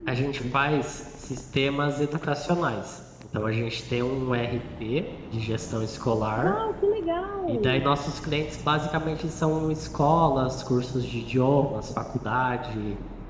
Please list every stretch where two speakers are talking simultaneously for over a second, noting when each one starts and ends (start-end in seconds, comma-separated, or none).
none